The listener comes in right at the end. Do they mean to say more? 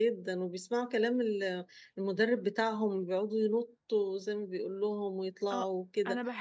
Yes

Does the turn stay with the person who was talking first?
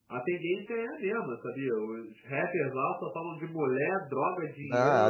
No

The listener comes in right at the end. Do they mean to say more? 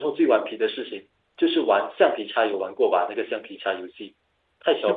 Yes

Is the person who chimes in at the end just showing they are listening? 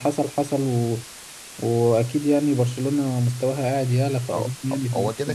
No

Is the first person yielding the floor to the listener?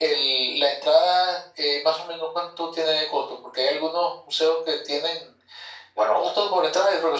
No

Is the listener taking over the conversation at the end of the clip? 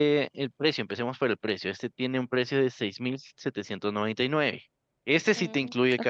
No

